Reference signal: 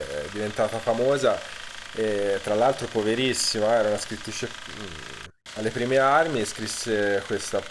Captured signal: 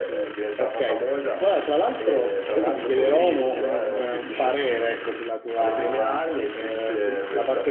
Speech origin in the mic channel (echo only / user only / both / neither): both